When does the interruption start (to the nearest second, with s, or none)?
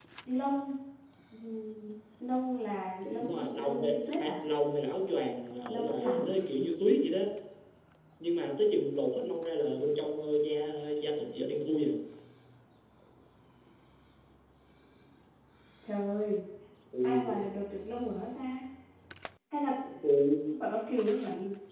3 s